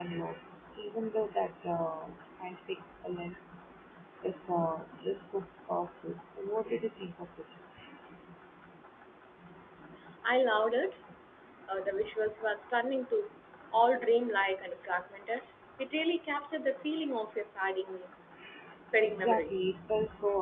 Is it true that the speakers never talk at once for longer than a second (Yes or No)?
Yes